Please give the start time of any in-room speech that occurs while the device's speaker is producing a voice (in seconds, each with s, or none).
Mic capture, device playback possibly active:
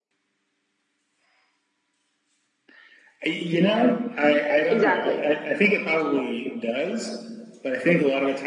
4.7 s